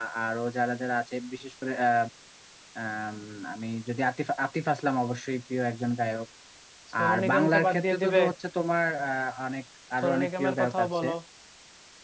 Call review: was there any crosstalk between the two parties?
Yes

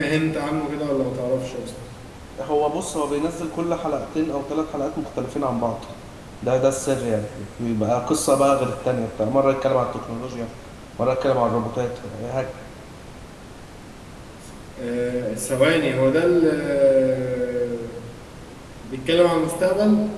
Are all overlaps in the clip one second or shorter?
Yes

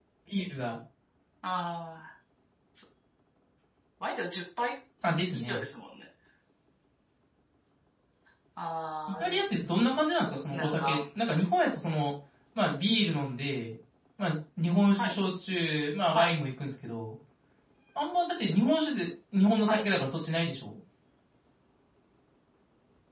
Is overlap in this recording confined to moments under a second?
Yes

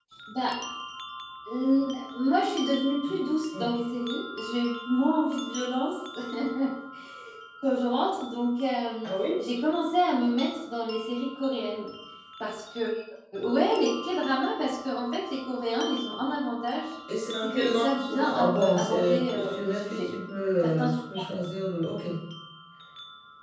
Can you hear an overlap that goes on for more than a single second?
Yes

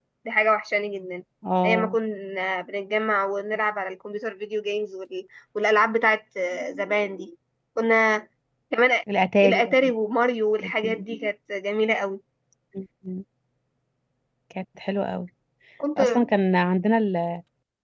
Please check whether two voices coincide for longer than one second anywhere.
No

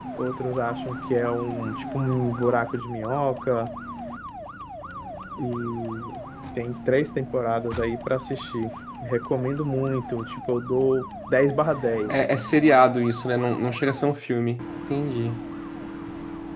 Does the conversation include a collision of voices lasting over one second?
No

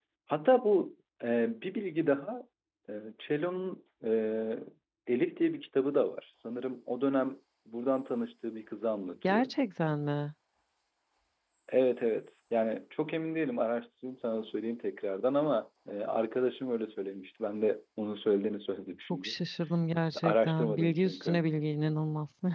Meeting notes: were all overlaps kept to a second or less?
No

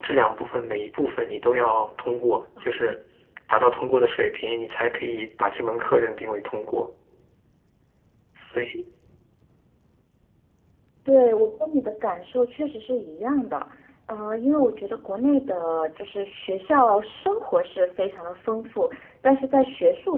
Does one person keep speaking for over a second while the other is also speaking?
No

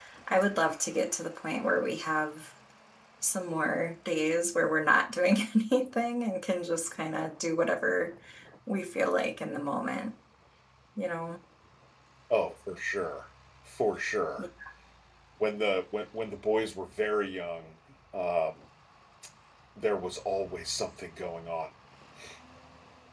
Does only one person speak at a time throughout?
Yes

